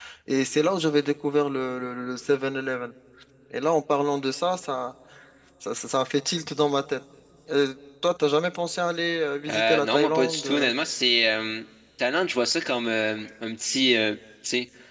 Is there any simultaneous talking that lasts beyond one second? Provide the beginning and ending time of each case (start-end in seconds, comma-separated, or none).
9.5-10.7